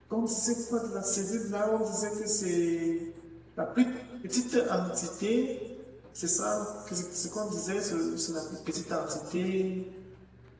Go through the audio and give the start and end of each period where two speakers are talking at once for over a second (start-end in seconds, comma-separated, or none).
none